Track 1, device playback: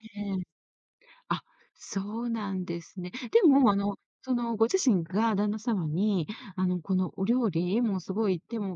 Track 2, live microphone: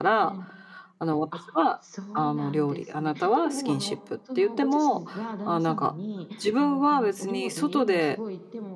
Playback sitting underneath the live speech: Yes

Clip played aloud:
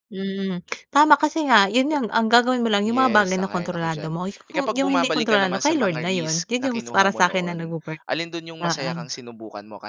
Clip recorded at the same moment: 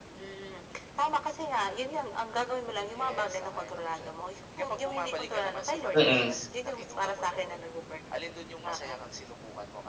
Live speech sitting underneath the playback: No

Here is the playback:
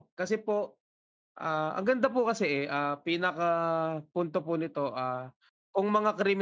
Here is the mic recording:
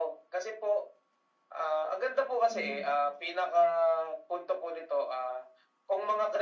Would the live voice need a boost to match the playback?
Yes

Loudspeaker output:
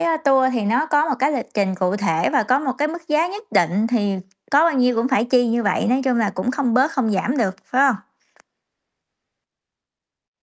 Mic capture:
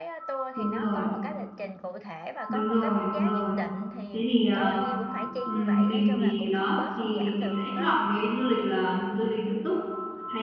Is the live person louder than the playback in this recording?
Yes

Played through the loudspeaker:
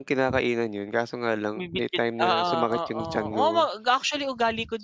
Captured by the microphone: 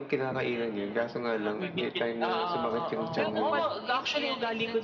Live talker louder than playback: No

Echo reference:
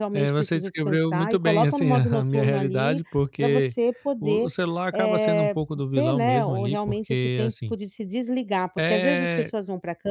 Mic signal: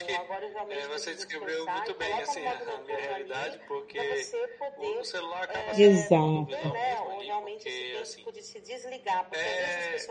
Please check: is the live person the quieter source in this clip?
No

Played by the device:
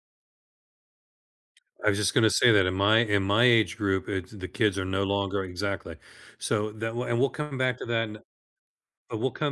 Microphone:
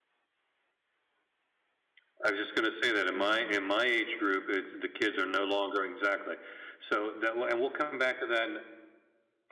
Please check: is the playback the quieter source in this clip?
No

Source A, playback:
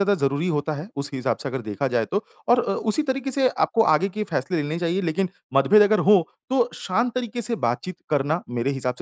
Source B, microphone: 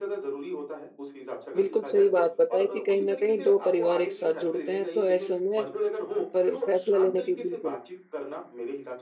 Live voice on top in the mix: Yes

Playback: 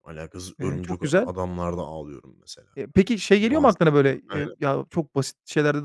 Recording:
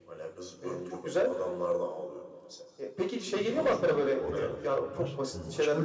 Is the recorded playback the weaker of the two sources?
No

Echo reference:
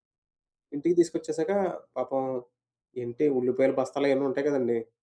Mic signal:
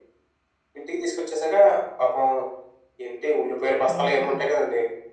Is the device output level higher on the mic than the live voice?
Yes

